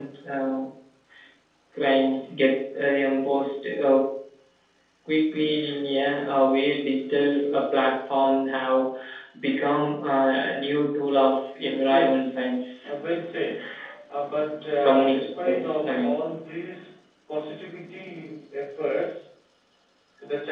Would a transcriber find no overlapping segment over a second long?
No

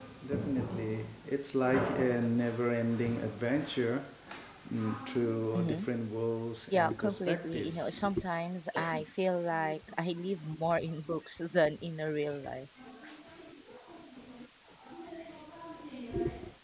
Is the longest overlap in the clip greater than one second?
Yes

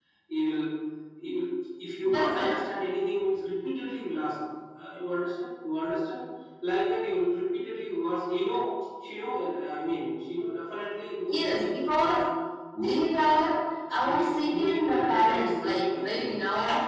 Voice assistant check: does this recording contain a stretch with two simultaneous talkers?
Yes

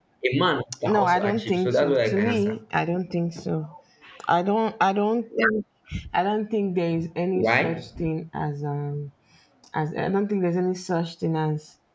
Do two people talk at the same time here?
Yes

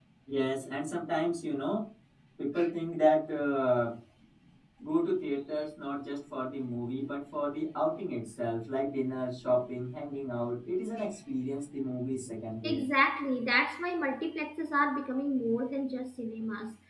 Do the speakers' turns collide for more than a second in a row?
No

